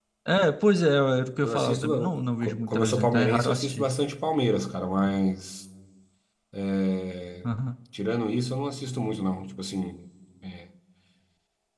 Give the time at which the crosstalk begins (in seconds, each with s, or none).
1.4 s